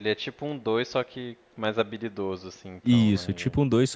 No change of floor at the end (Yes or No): No